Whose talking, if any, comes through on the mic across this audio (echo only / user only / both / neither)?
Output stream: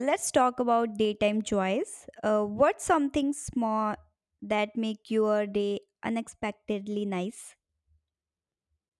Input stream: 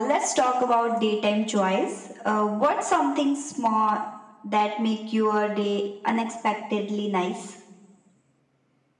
echo only